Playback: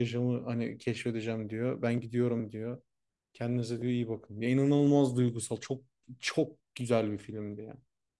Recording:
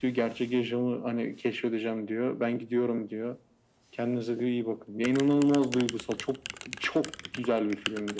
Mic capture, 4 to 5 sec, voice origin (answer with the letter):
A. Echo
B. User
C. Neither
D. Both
A